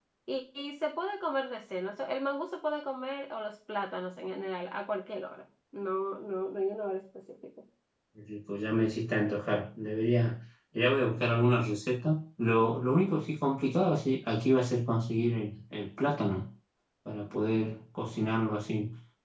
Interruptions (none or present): none